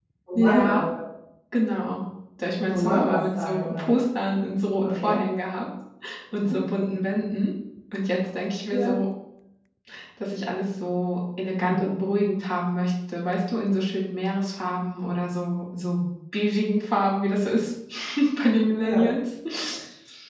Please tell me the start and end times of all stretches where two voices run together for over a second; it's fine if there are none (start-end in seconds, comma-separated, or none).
2.7-4.0